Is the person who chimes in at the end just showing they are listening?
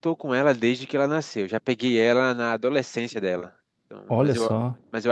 Yes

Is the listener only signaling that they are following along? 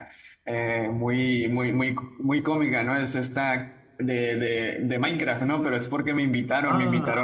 Yes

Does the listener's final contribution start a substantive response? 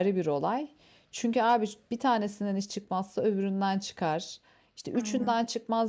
No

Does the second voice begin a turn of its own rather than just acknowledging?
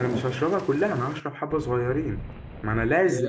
No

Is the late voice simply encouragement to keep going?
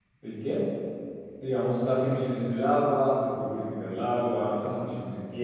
Yes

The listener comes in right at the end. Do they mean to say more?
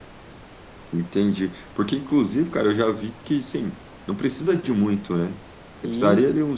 No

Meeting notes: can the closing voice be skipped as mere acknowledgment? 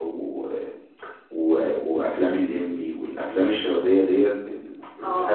No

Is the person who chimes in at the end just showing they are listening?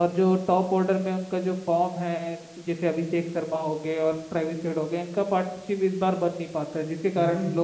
No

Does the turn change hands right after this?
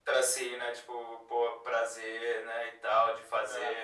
No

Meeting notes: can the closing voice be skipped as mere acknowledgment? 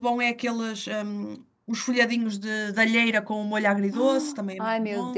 No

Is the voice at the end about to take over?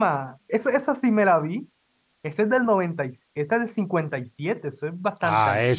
Yes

